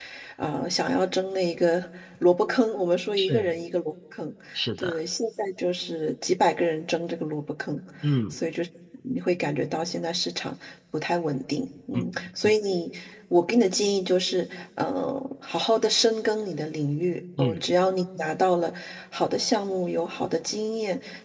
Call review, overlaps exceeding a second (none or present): none